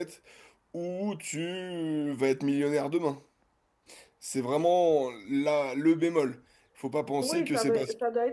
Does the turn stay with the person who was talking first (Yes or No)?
No